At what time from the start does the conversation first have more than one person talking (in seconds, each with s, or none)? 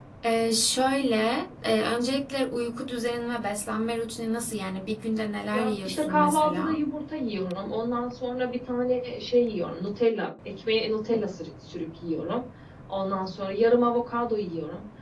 5.5 s